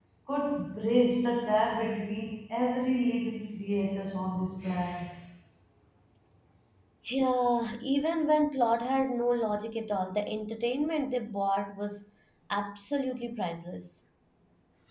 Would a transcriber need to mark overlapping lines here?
No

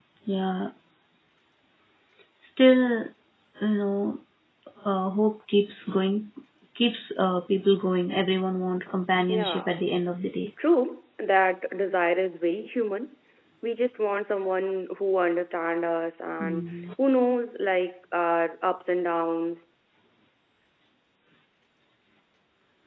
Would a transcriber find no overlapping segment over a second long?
Yes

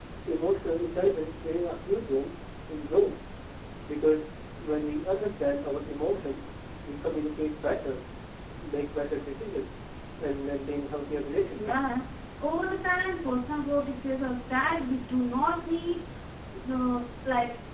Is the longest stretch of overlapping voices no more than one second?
Yes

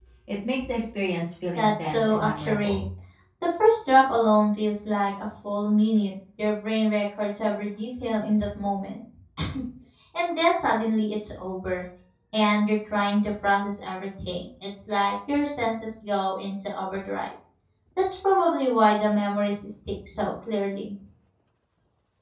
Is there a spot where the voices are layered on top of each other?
Yes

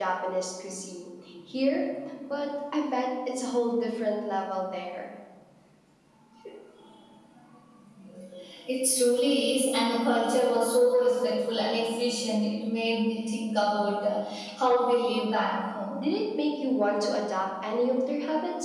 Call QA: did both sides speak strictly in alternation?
Yes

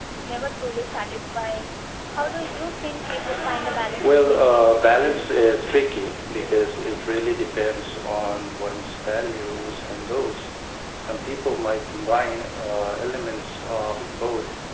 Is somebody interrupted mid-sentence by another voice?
Yes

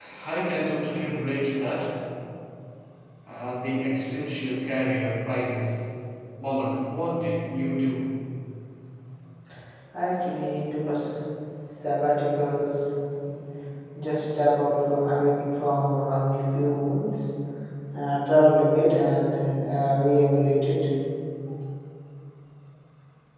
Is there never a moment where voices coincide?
Yes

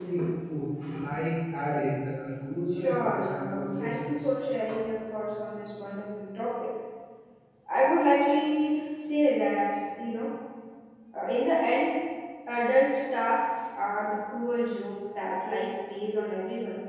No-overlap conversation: No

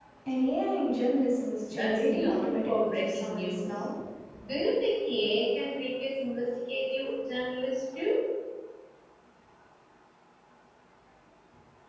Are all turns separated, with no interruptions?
No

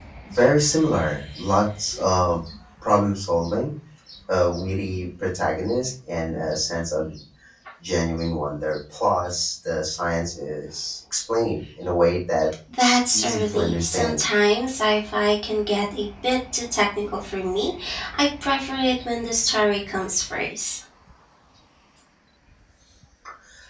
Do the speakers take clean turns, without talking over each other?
No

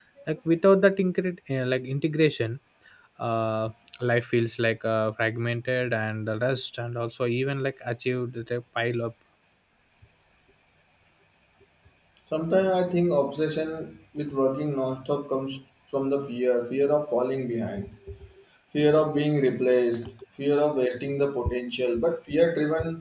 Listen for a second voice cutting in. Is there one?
No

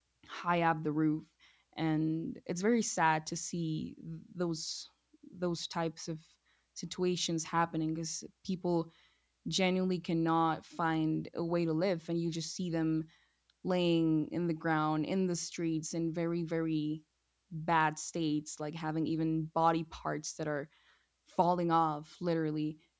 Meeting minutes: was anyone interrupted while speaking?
No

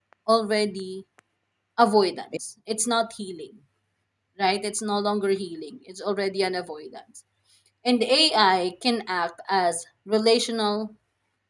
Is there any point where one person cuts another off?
No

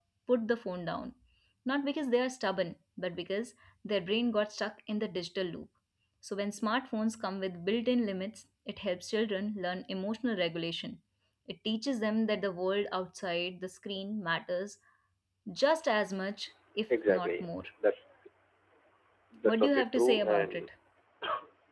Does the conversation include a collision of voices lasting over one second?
Yes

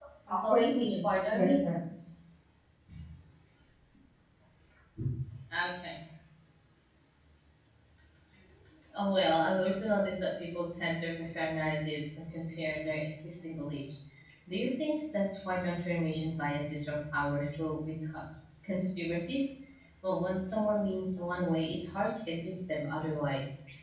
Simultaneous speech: Yes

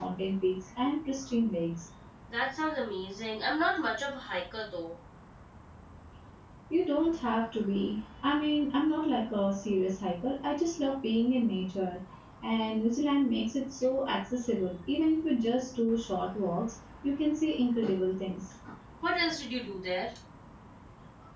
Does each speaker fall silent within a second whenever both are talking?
Yes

